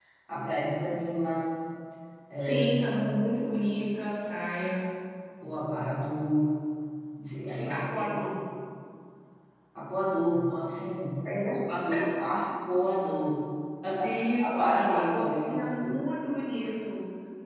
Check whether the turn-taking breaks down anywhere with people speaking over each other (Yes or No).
Yes